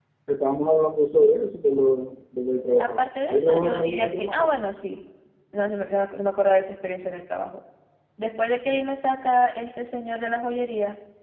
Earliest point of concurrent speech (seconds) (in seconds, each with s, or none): 2.8 s